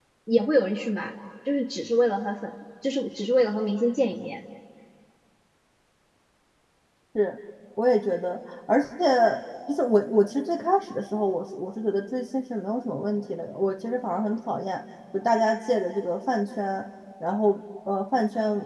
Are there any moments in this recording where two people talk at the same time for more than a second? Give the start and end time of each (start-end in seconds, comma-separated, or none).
none